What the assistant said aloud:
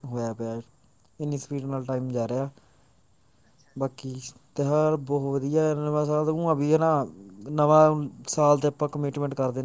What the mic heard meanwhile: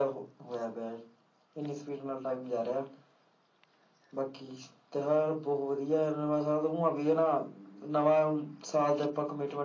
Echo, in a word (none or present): present